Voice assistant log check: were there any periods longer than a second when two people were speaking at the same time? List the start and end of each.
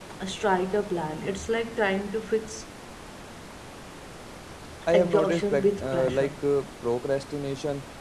4.9-6.3

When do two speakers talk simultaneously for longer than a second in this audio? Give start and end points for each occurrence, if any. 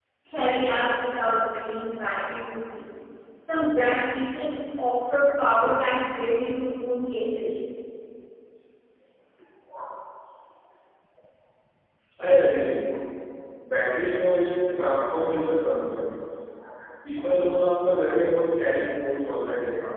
none

